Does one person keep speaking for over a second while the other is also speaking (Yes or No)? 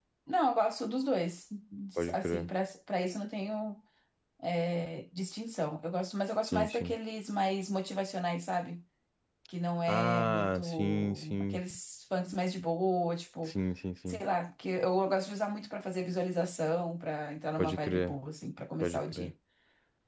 Yes